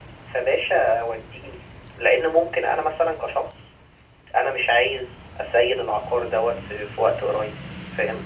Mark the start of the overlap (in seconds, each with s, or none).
none